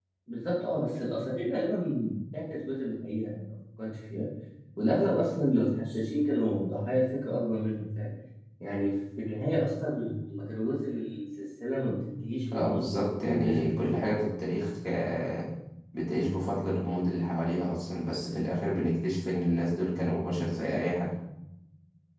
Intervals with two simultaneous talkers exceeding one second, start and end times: 12.5-14.0

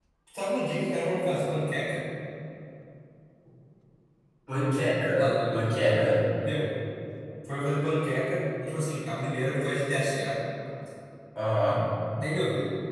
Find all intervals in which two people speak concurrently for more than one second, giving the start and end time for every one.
none

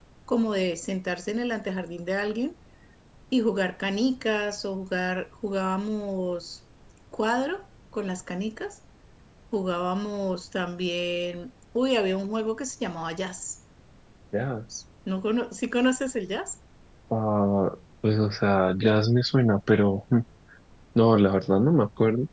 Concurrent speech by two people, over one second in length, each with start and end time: none

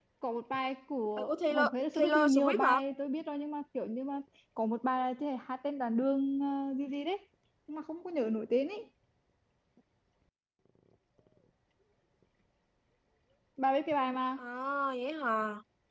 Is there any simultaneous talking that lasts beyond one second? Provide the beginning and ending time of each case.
1.2-2.8

